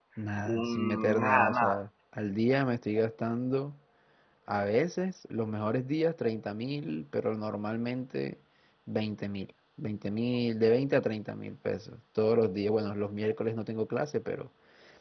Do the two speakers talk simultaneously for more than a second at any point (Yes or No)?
Yes